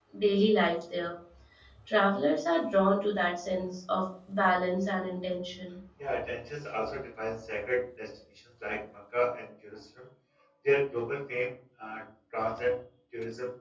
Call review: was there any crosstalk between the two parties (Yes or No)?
No